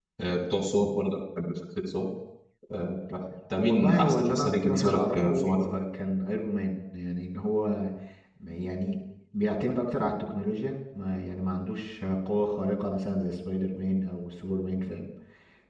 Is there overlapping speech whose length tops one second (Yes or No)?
Yes